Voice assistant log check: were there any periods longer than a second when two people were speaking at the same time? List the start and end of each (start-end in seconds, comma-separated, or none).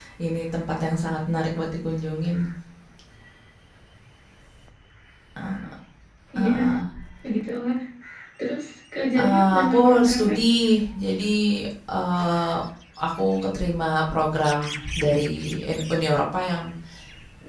9.2-10.4